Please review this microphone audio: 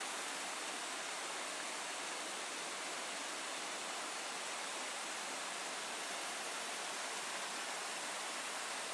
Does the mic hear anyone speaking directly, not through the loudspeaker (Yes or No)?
No